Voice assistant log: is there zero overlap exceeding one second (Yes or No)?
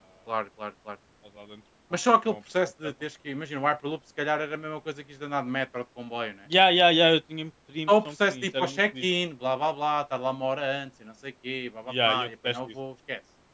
No